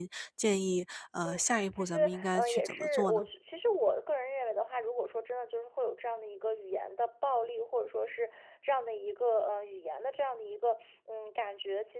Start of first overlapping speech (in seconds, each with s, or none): 1.2 s